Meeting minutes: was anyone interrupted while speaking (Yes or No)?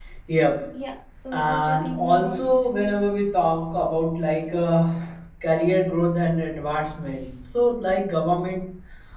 Yes